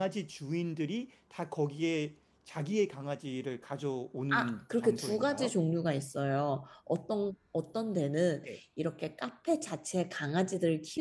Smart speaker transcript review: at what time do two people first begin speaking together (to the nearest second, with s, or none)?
4 s